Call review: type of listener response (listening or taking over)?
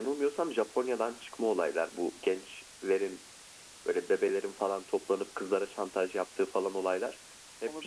listening